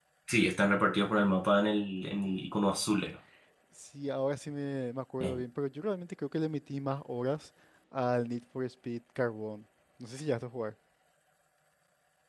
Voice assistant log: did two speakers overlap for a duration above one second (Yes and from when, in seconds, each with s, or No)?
No